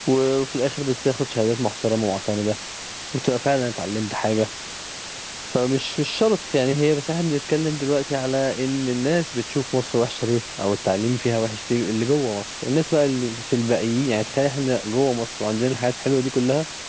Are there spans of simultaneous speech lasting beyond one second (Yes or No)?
No